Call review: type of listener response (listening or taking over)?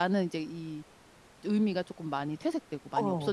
taking over